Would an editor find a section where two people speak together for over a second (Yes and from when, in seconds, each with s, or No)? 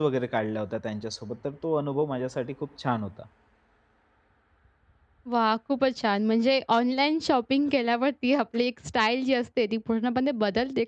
No